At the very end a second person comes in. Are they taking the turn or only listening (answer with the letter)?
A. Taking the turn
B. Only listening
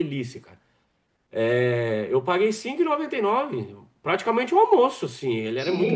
A